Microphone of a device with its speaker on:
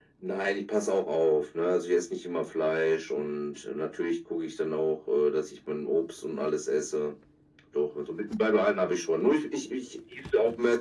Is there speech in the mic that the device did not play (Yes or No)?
No